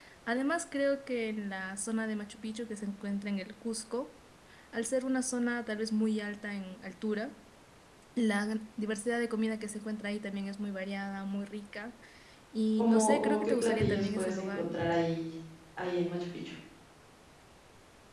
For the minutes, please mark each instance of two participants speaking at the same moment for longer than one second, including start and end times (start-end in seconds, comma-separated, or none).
12.8-14.7